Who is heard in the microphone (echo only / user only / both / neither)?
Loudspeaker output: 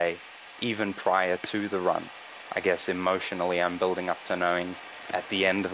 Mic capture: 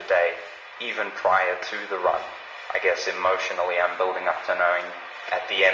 echo only